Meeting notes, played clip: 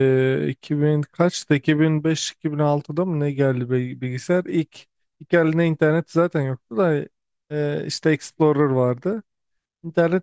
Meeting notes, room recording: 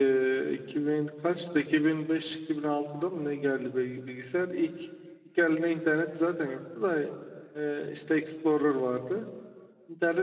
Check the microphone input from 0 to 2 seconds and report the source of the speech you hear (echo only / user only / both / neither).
echo only